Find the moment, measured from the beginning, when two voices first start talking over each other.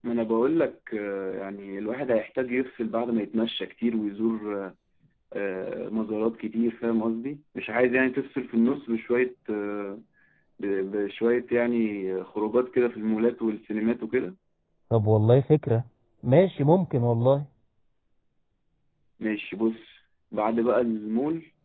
none

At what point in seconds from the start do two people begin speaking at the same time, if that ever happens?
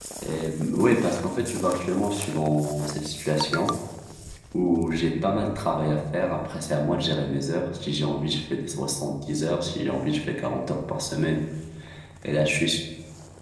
none

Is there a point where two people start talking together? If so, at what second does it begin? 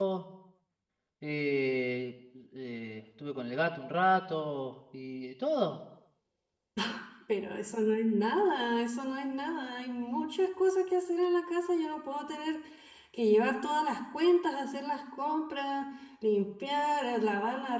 none

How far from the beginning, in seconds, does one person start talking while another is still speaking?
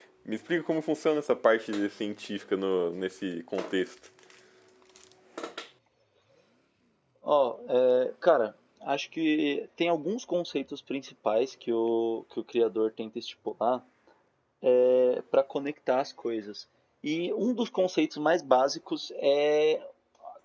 none

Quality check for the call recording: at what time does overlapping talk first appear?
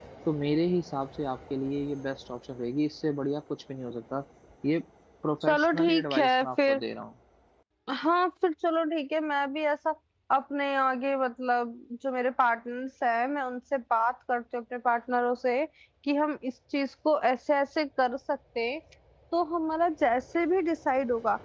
5.4 s

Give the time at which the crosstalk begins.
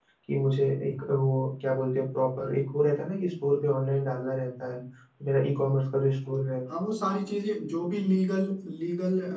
none

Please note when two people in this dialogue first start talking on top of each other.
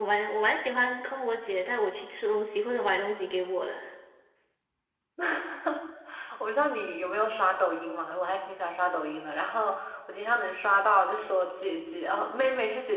none

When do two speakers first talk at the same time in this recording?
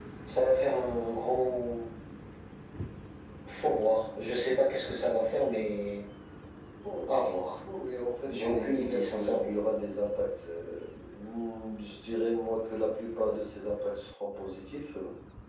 8.3 s

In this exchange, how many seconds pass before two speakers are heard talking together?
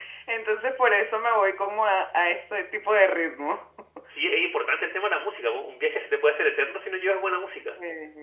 none

